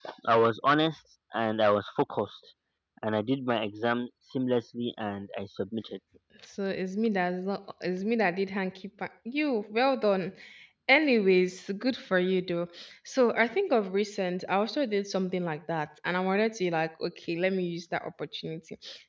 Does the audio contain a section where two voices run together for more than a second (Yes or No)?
No